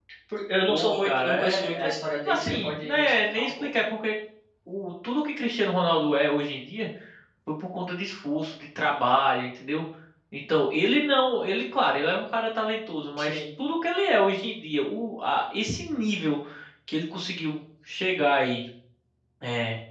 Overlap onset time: 0.7 s

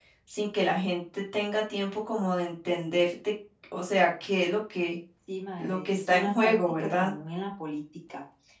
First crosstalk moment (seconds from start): 5.6 s

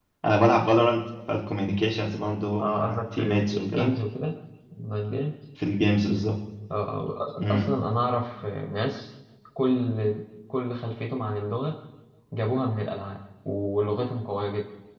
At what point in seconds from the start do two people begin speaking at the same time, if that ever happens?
2.6 s

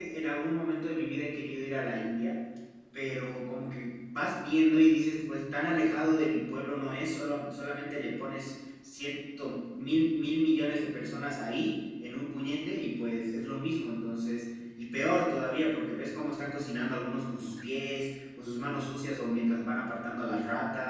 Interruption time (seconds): none

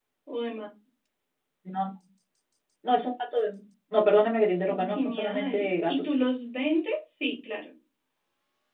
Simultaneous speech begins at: 4.7 s

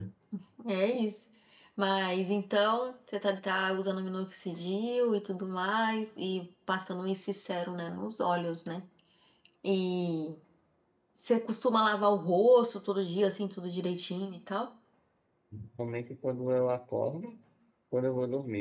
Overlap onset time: none

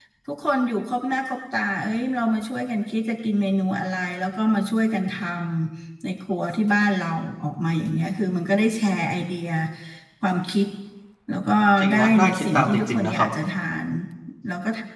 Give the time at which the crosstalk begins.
11.9 s

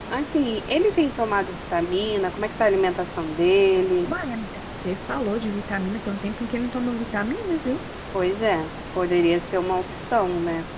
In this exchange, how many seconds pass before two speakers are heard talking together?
none

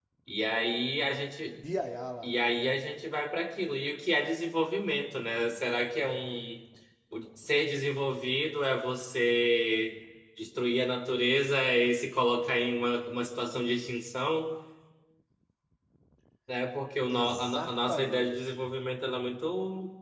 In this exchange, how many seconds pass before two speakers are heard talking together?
17.1 s

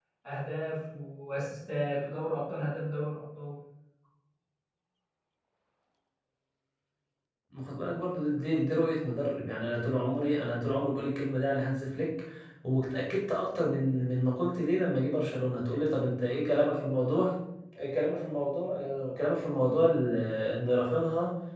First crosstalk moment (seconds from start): none

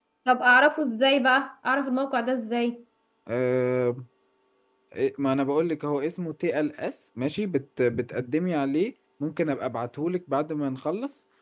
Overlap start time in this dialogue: none

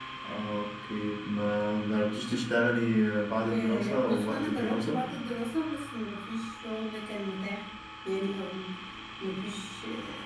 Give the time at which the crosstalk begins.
3.5 s

